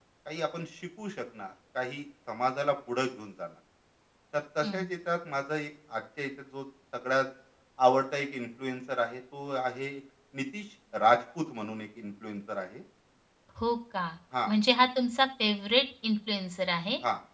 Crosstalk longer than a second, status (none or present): none